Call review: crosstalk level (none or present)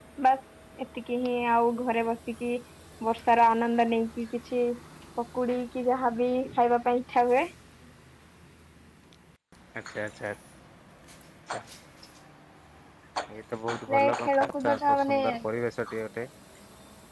present